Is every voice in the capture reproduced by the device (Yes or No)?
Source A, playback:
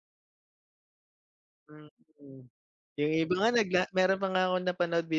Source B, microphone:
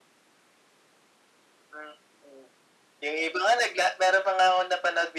Yes